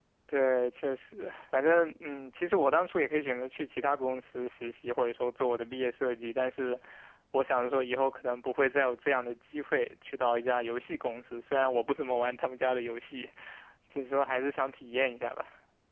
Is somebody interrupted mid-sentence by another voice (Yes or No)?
No